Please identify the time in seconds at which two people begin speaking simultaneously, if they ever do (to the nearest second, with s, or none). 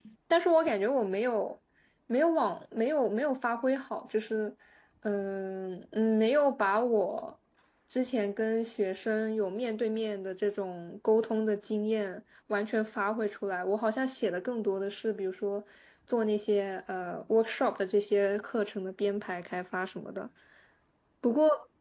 none